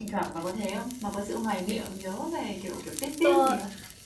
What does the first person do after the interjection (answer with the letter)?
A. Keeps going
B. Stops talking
B